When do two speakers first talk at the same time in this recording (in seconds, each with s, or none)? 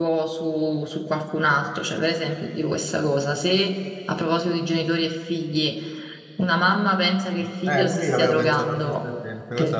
7.7 s